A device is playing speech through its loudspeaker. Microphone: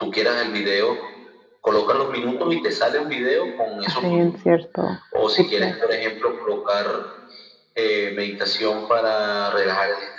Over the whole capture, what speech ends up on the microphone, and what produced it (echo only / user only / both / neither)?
both